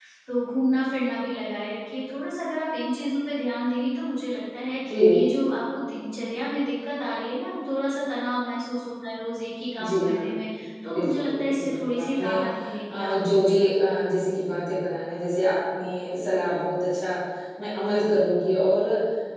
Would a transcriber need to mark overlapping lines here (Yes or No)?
Yes